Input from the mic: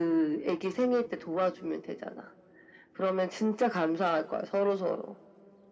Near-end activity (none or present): none